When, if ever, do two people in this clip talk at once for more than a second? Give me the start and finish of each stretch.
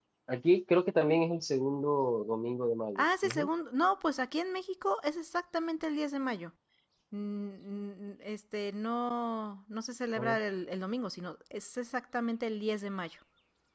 none

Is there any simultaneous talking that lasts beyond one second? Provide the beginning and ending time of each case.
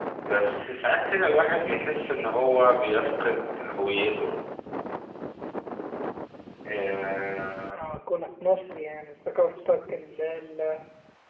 none

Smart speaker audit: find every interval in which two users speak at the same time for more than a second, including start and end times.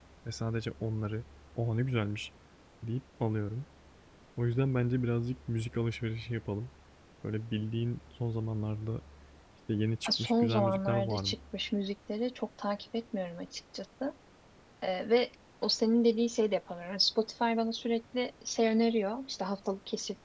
10.0-11.4

